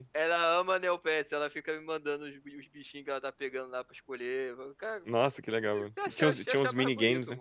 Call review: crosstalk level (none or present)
present